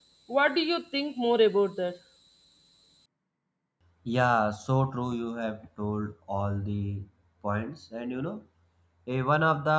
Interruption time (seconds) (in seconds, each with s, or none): none